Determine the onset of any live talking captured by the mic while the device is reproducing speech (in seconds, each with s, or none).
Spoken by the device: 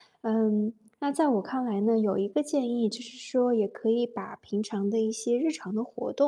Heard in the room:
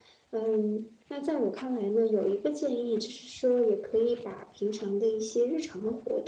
none